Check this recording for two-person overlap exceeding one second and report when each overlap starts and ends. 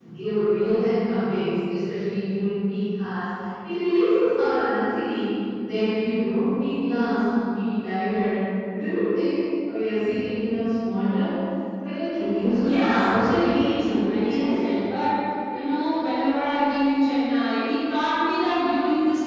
12.5-14.6

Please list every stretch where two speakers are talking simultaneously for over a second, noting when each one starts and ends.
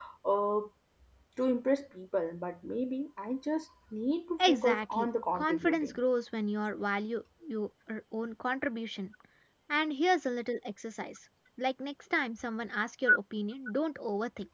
4.4-6.0

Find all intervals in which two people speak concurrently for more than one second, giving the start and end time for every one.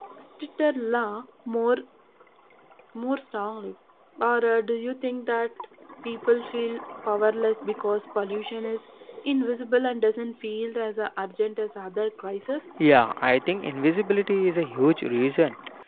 none

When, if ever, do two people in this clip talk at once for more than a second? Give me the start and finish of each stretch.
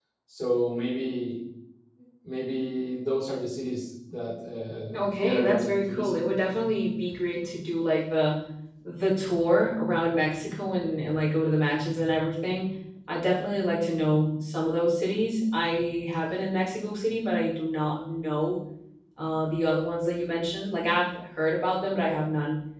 4.9-6.2

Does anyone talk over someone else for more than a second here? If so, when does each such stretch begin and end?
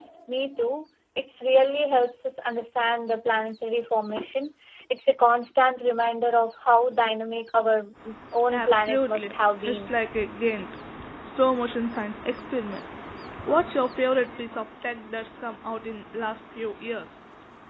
8.5-9.9

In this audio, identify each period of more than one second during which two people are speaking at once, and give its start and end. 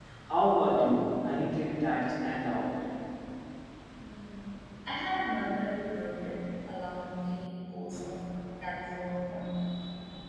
none

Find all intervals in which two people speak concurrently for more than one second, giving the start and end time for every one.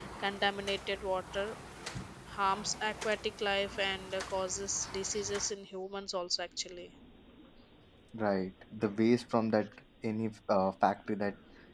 none

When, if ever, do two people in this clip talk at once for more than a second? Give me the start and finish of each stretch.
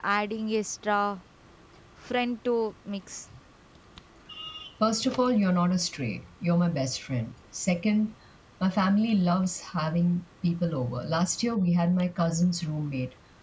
none

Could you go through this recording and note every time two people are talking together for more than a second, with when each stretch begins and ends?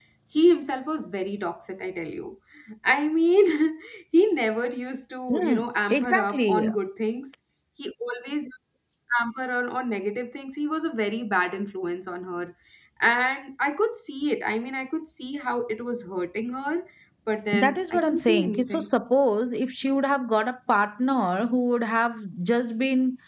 5.3-6.7, 17.5-18.9

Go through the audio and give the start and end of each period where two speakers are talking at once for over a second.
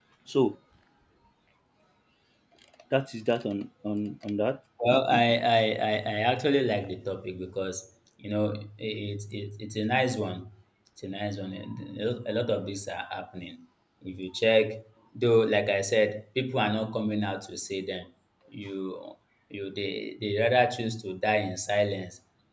none

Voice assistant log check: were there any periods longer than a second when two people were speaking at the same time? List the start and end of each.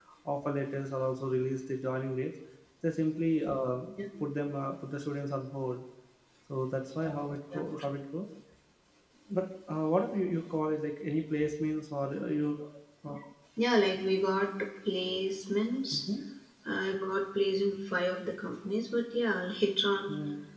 none

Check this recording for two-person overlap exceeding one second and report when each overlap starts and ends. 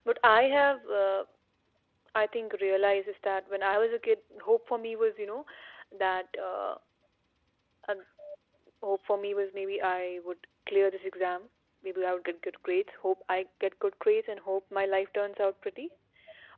none

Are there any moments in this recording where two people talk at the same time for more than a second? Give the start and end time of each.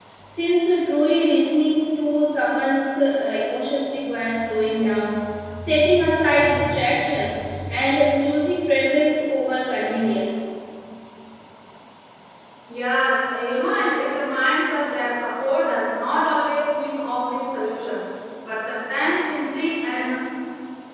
none

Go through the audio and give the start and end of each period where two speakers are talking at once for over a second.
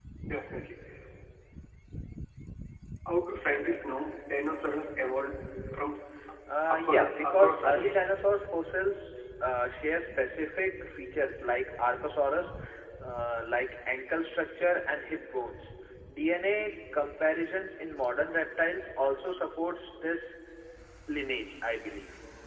6.7-8.1

